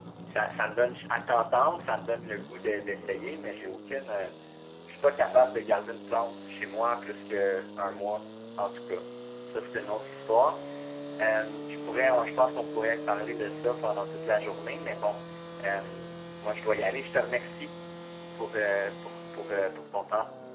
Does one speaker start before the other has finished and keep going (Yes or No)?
No